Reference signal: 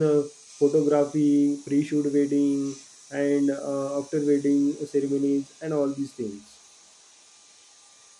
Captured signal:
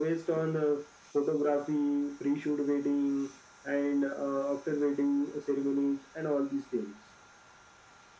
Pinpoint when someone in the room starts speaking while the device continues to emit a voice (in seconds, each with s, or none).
none